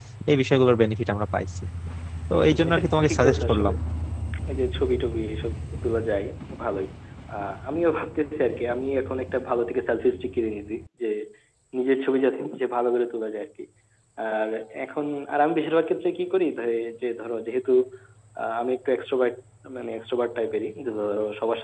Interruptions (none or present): present